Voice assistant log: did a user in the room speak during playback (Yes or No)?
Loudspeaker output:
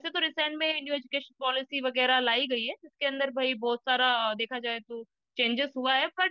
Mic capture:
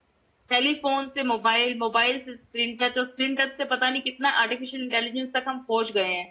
Yes